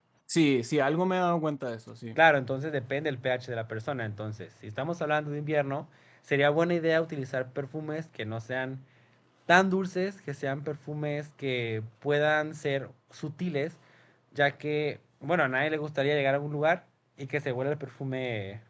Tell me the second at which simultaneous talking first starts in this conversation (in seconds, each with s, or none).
none